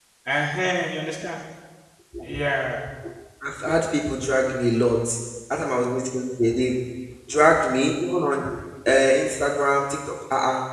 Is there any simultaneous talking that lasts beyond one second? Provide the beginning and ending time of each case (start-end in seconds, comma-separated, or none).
none